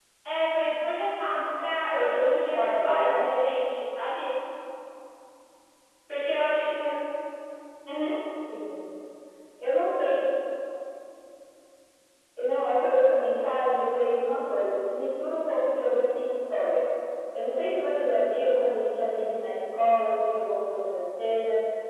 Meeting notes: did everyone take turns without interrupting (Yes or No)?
No